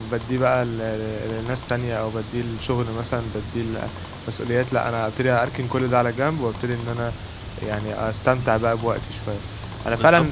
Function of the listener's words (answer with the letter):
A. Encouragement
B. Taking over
A